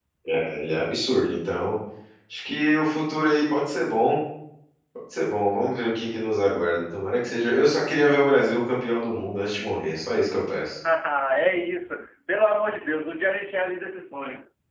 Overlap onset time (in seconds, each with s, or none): none